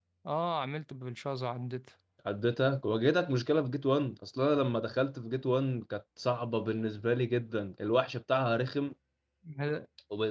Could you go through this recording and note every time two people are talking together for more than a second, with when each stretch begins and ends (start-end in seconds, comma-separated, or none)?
none